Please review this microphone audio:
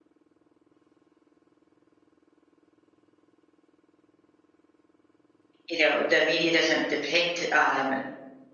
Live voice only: you know the media doesn't depict um

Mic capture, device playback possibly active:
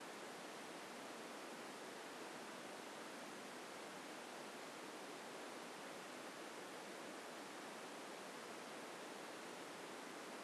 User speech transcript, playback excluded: none

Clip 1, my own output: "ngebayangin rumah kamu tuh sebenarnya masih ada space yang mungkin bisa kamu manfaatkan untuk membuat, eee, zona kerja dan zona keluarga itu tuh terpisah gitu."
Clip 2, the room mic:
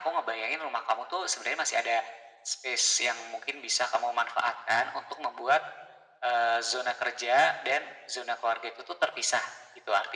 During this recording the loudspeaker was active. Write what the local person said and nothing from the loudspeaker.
none

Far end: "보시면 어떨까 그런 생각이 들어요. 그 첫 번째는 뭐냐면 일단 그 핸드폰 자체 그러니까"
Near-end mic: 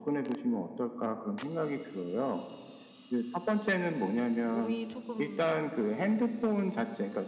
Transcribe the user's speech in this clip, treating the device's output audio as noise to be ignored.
몸이 쪼끔

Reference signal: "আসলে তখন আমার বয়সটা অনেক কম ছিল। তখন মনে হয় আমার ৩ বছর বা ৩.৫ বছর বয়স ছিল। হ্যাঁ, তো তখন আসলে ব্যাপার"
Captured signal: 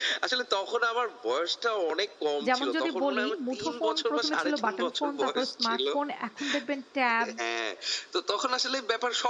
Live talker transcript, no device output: যেমন যদি বলি মুঠোফোন ১ম এ ছিল বাটন ফোন, তারপর স্মার্টফোন। এখন দেখবেন ট্যাব,

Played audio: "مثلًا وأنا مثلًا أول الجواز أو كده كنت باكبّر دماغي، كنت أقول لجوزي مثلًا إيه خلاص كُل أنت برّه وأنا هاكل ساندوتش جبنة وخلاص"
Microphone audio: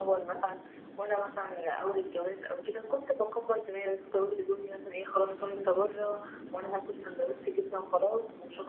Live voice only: none

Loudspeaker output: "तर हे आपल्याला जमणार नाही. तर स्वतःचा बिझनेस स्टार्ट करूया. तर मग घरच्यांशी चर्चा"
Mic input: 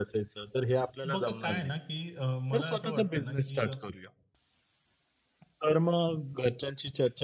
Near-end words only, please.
बघा काय आहे ना, की अ, मला असं वाटतं ना, की

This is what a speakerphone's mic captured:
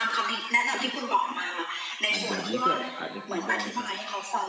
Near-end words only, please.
อันแบบนี้ก็อาจจะทำได้นะครับ

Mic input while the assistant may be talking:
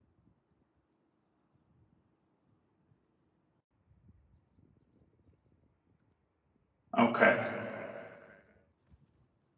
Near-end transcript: Okay.

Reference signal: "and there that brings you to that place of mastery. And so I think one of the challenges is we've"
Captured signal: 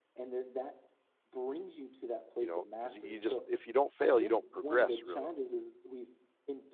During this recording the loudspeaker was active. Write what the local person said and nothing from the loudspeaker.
you know because you just if you don't fail, you don't progress really.

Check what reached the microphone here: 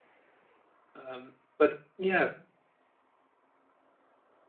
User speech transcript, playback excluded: um, but yeah,

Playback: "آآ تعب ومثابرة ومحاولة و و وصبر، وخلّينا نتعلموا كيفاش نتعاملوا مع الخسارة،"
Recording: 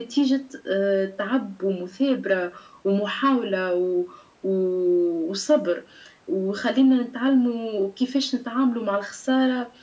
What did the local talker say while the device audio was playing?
none

